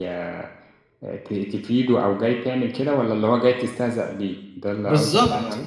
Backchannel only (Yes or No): No